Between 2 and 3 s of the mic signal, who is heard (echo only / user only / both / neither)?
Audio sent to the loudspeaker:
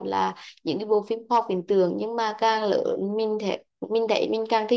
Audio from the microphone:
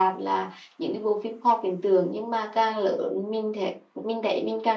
echo only